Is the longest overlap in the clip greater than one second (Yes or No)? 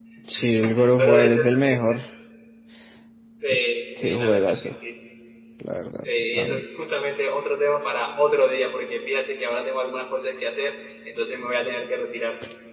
Yes